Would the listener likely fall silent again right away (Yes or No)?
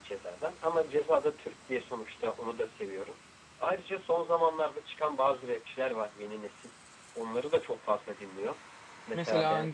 Yes